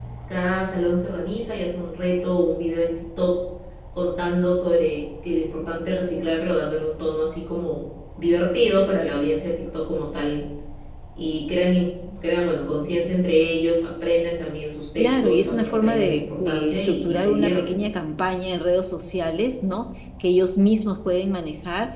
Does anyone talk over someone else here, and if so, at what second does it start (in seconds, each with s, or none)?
15.0 s